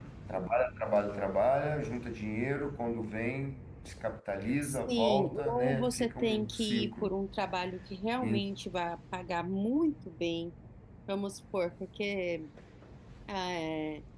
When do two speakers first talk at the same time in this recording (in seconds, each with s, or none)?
4.6 s